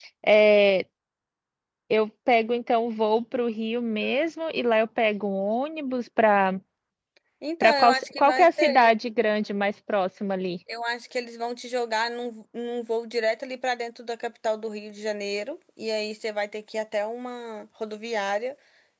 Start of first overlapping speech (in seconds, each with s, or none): 7.6 s